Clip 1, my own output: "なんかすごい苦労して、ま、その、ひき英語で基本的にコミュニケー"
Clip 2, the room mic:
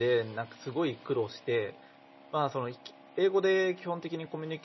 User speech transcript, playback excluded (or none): none